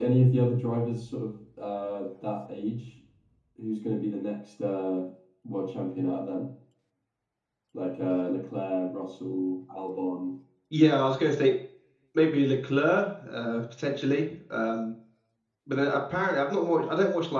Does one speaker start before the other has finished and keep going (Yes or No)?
No